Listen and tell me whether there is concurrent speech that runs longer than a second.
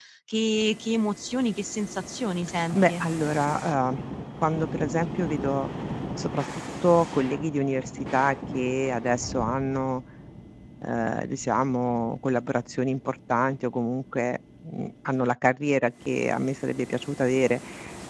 No

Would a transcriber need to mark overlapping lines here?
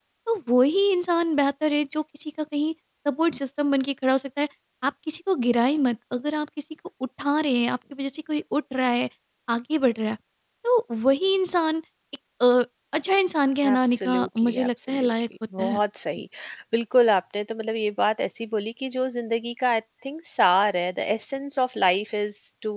Yes, from 13.6 s

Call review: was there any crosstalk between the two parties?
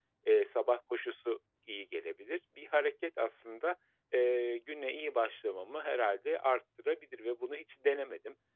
No

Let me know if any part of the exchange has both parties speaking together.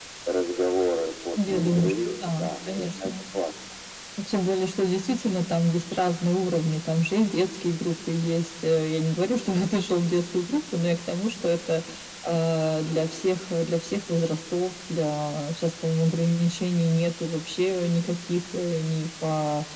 Yes, from 1.5 s

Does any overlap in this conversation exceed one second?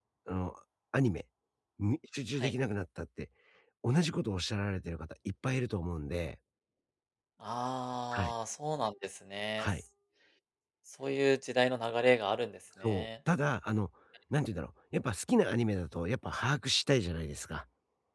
No

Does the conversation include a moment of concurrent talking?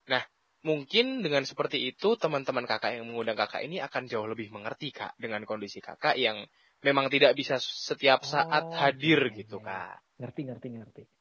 Yes, from 8.2 s

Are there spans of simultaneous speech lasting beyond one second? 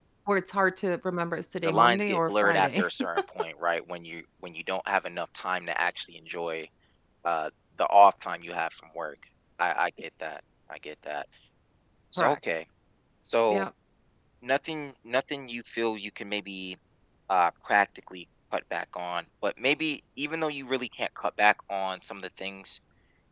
Yes, from 1.6 s

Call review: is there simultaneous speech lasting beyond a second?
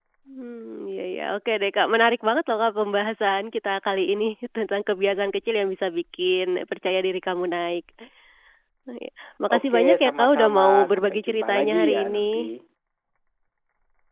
Yes, from 9.6 s

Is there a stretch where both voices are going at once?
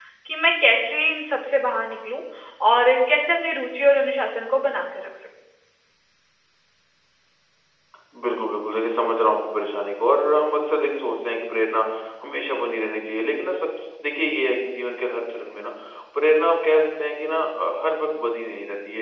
No

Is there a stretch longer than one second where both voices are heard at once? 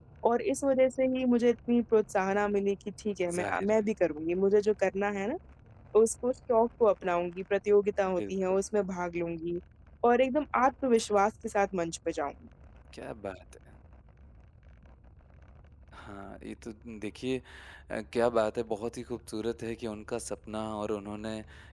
No

